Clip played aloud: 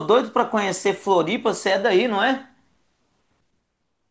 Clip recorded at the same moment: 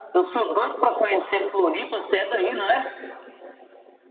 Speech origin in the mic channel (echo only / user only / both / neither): echo only